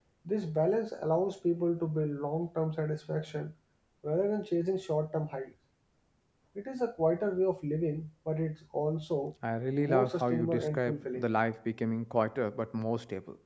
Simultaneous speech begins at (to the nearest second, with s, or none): 10 s